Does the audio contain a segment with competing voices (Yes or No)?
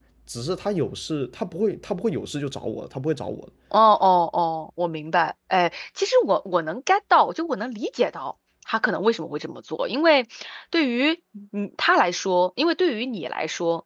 No